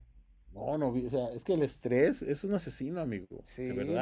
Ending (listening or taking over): taking over